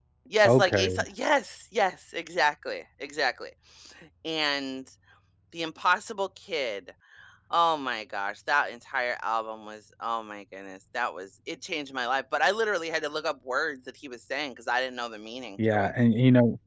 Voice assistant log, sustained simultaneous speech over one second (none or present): none